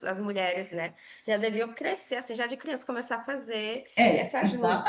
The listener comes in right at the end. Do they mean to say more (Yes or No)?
Yes